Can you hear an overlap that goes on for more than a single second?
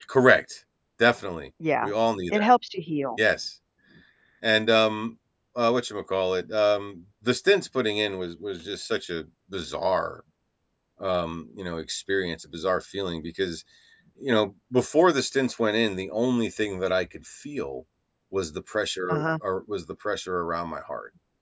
No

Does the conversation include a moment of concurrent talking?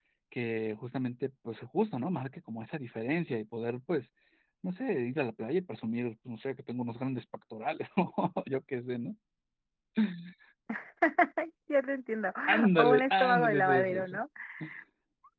Yes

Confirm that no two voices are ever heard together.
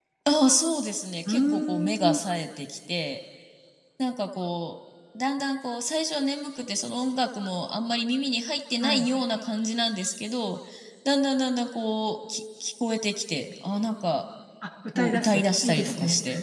No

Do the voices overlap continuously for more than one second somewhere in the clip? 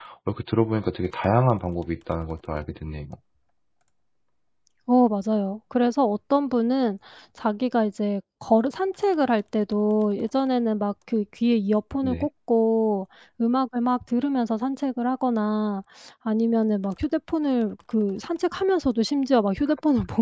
No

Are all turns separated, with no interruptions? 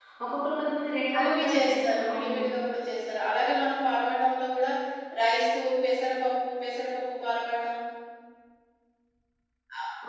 No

